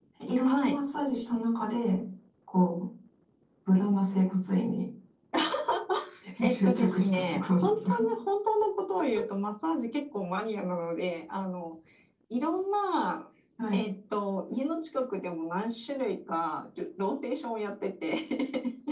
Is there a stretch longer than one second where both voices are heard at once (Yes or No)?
Yes